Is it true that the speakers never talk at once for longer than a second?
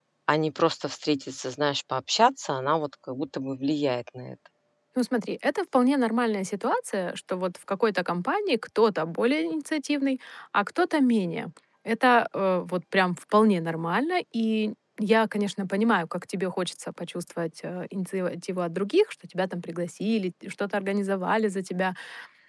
Yes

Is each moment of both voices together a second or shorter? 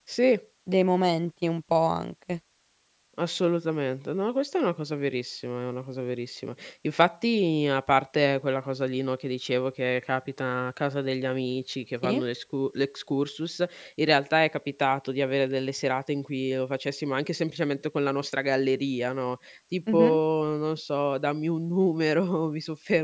Yes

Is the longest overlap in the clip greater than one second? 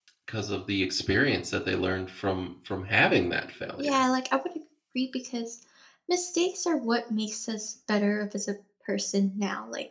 No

